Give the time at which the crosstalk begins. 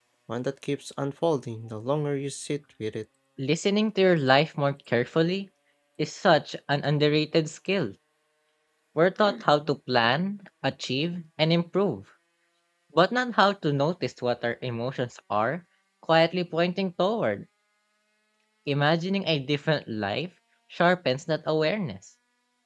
none

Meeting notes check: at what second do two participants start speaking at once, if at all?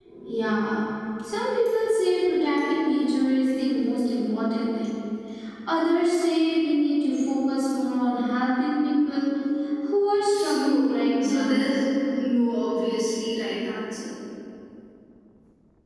10.3 s

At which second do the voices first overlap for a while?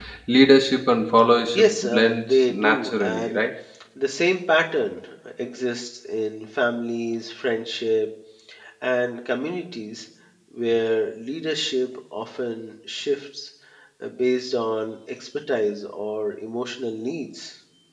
1.6 s

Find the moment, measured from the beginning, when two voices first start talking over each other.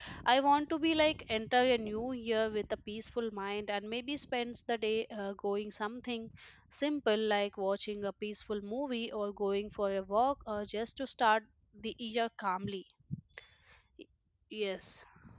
none

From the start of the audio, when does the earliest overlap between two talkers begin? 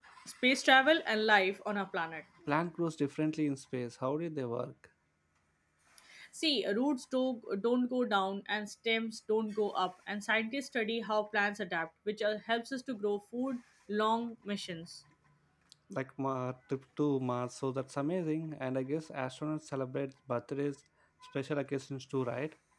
none

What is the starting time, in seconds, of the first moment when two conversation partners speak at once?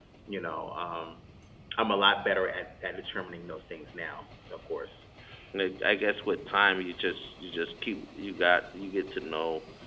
none

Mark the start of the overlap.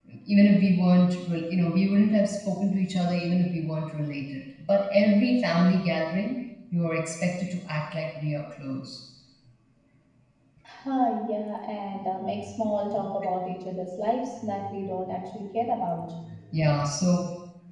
none

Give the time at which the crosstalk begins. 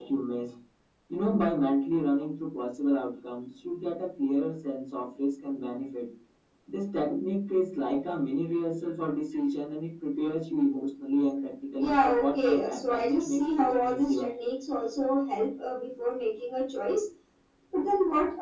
11.8 s

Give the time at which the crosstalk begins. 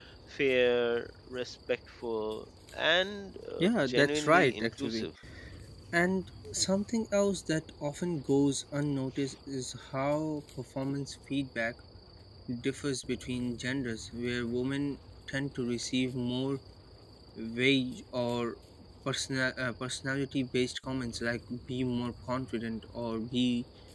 3.6 s

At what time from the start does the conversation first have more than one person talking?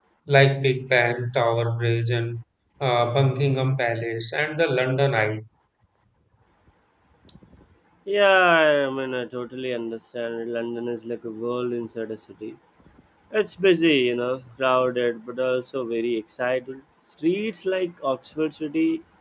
none

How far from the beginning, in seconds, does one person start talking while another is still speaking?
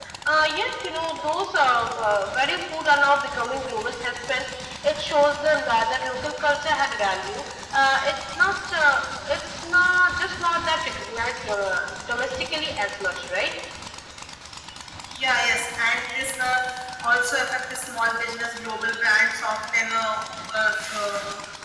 none

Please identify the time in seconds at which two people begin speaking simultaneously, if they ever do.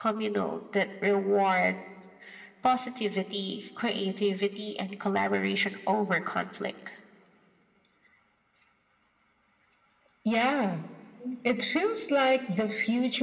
none

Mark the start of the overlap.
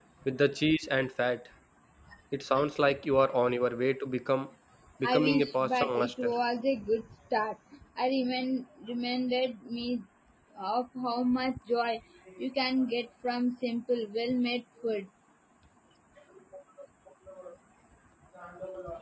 5.0 s

